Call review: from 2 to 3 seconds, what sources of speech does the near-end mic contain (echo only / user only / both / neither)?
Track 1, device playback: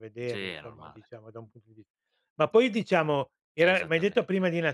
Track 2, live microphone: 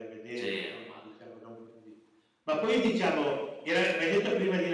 echo only